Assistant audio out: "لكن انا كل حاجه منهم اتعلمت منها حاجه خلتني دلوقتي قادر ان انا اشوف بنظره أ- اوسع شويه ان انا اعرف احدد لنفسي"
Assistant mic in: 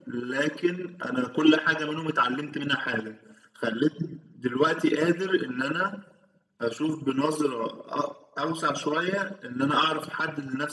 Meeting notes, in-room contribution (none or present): none